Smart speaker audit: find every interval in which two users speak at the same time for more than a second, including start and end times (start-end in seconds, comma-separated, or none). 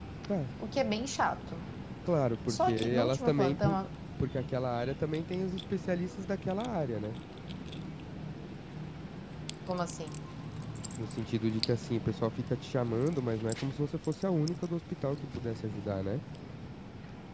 2.5-3.8